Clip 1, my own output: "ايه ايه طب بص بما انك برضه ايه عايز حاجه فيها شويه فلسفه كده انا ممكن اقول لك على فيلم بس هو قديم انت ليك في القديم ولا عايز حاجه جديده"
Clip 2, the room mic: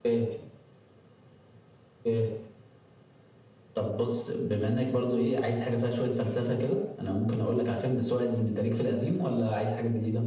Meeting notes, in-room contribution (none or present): none